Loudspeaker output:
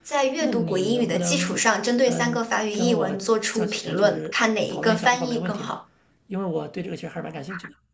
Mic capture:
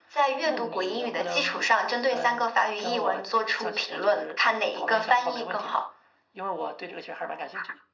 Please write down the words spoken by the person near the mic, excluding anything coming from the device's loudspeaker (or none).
none